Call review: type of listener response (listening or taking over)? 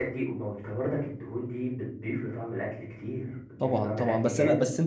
taking over